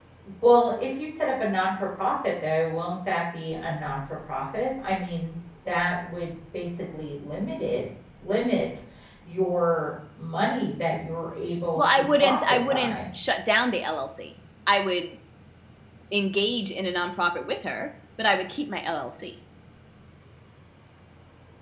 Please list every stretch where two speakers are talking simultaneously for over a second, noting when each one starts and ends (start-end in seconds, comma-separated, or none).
11.8-13.0